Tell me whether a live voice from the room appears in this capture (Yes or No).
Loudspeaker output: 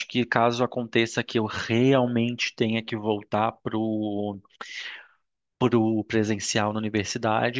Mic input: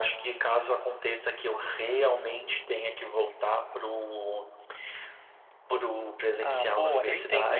Yes